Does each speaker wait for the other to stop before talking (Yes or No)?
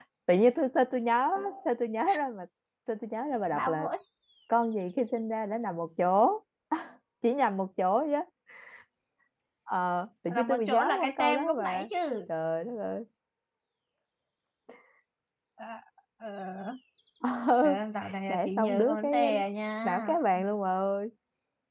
No